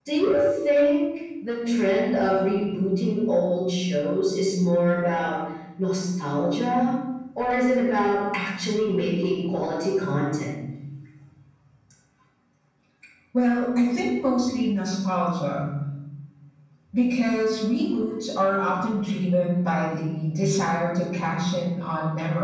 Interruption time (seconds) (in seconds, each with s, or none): none